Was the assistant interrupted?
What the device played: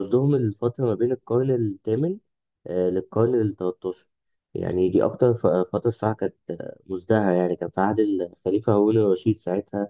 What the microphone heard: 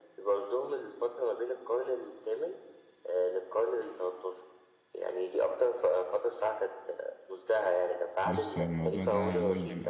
Yes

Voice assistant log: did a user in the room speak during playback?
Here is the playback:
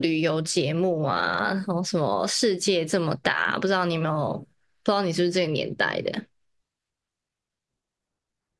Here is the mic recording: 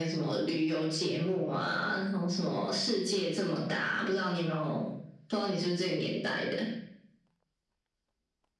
No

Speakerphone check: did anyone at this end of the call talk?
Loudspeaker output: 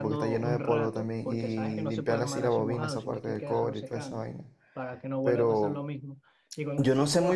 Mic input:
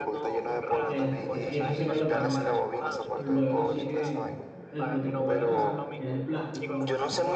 Yes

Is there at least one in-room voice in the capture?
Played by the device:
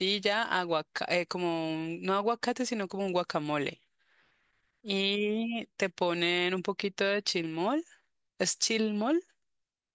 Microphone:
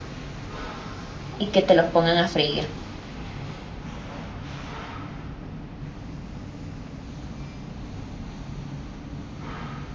Yes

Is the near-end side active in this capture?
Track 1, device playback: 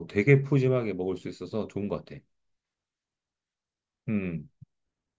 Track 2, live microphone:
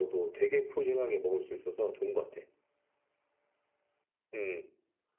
No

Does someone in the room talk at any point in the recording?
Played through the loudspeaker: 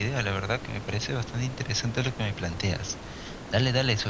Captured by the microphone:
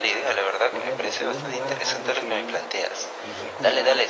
Yes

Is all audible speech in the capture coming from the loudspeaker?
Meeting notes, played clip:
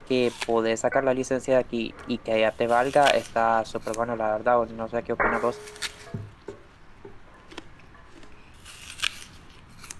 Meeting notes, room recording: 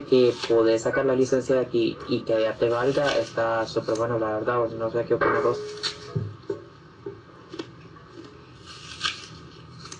Yes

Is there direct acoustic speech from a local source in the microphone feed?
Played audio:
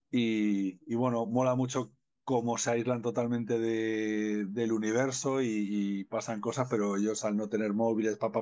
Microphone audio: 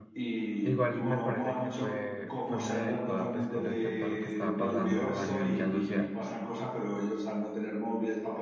Yes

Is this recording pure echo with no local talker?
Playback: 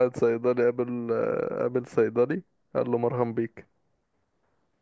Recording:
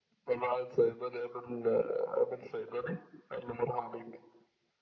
Yes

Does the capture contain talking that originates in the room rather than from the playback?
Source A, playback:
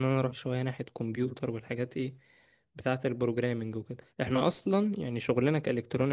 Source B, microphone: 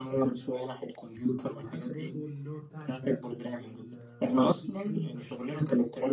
Yes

